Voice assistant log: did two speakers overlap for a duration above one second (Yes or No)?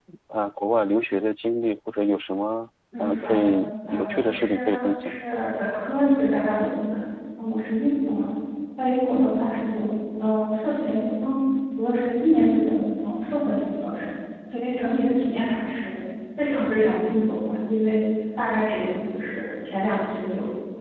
Yes